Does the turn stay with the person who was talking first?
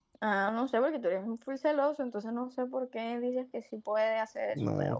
No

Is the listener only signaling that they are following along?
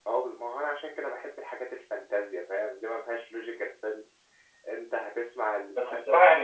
No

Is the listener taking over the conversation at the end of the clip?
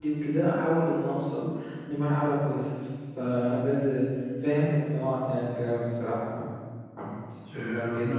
Yes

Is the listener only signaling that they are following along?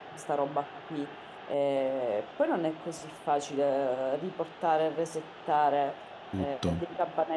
Yes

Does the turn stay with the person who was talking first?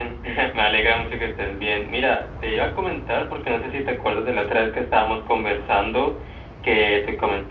Yes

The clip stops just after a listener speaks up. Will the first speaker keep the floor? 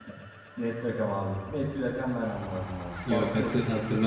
No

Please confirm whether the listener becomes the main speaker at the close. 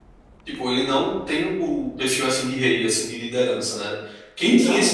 No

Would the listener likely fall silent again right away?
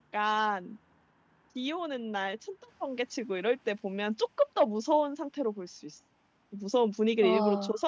Yes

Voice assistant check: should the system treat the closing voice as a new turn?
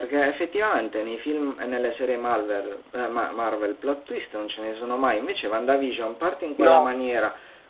No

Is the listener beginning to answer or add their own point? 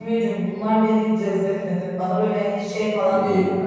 No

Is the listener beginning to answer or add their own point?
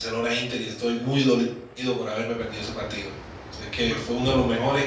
No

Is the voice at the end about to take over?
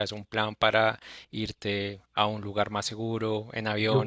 Yes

